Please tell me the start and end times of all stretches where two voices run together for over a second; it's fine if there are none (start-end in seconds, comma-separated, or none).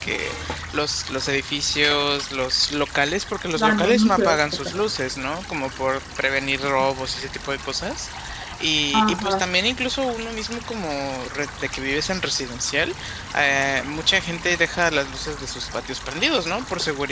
3.6-4.8